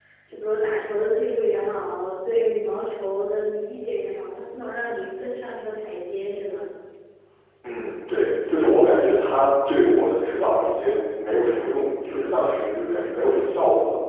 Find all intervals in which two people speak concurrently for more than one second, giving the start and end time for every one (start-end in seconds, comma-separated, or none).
none